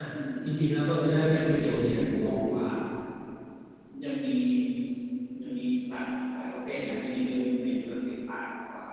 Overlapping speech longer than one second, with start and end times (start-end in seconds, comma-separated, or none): 1.1-2.5